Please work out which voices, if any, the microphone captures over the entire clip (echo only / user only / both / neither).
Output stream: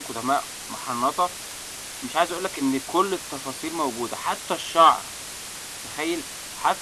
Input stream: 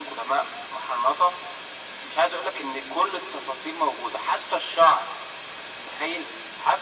echo only